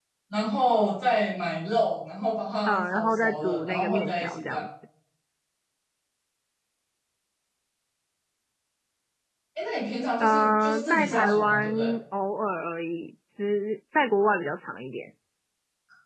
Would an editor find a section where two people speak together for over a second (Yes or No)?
Yes